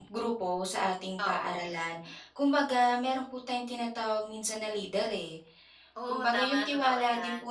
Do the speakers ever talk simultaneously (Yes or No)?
Yes